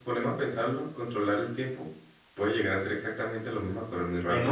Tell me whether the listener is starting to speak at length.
Yes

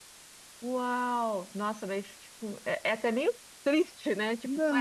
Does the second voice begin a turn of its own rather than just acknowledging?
Yes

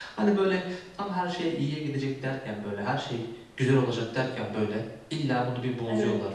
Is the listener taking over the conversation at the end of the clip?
No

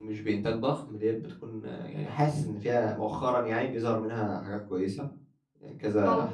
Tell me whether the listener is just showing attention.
Yes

